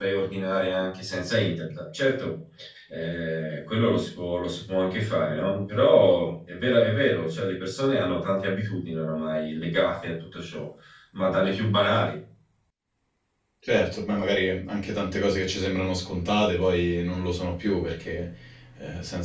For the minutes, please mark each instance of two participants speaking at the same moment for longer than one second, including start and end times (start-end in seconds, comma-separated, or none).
none